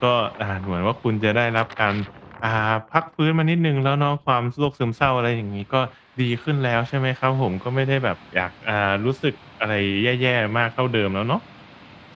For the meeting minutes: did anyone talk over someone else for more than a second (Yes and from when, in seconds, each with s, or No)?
No